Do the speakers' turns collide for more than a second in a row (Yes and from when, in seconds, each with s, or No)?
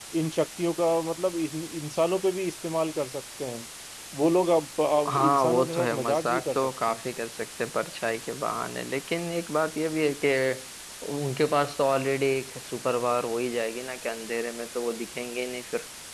Yes, from 4.9 s